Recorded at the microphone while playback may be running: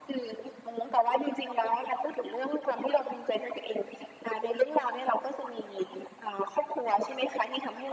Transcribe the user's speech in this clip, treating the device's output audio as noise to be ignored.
none

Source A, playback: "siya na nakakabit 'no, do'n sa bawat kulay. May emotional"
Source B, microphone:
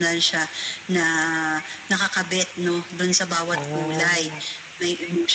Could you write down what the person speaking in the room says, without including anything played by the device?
Ah.

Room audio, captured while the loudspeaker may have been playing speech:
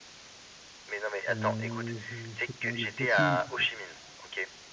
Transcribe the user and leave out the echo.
Heu, je je sais pas, le Vietnam peut-être.

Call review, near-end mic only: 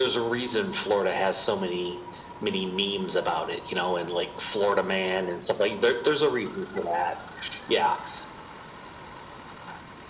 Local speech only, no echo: none

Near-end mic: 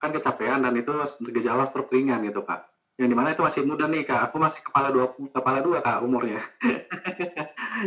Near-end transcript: none

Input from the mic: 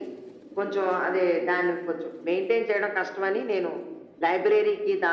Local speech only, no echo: none

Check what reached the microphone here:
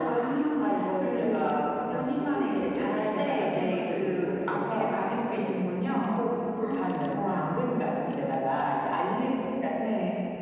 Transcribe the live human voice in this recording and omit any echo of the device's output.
none

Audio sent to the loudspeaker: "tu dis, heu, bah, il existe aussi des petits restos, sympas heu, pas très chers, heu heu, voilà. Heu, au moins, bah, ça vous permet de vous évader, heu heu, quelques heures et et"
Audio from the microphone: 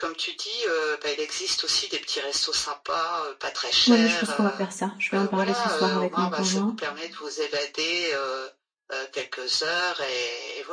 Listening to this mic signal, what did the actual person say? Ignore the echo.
Ouais, mais je pense qu'on va faire ça. Je vais en parler ce soir avec mon conjoint,

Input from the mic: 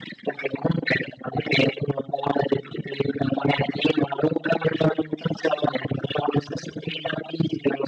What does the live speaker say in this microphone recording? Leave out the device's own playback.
none

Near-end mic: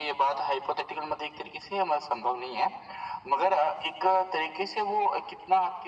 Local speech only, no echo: none

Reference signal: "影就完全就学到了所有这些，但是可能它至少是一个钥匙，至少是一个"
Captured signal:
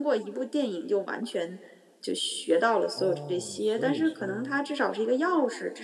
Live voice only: 哦，所以说，

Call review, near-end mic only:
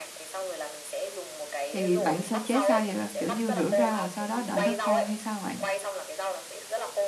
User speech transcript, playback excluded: thì bạn sơ chế sao vậy? Kiểu như, rửa rau rồi sau đó đợi nó khô hay sao bạn?

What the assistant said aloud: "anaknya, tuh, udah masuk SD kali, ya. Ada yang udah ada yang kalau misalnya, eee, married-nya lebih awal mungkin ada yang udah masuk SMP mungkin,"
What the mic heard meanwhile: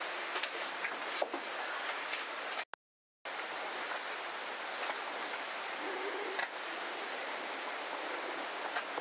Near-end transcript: none

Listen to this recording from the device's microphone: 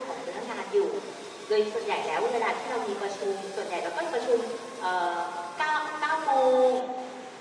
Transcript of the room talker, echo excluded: none

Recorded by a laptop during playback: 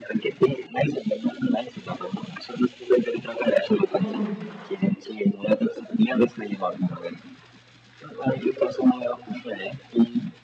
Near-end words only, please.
हं.

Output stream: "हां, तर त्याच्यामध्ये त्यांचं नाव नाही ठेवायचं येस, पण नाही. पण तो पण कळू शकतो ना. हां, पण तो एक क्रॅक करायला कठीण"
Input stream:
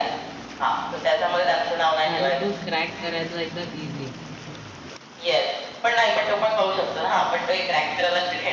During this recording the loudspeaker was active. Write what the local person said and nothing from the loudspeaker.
झालं तर क्रॅक करायला एकदम ईझी आहे.

